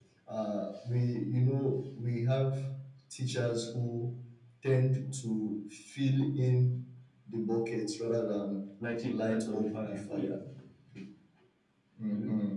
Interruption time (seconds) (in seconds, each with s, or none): 9.0 s